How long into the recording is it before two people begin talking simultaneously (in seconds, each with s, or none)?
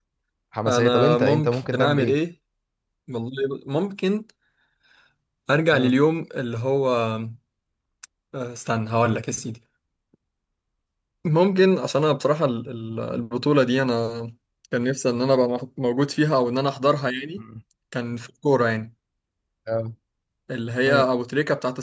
0.7 s